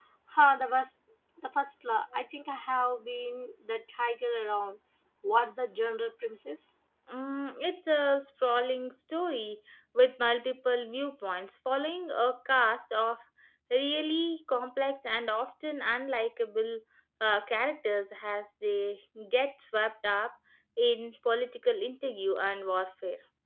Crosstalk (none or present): none